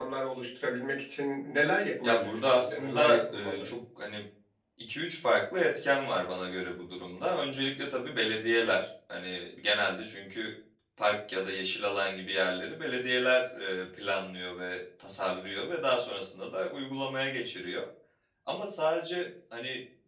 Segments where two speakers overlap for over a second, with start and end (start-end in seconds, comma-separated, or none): 2.0-3.7